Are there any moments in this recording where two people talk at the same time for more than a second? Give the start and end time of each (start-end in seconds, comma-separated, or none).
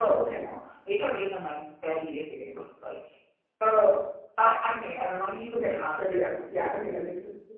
5.5-7.0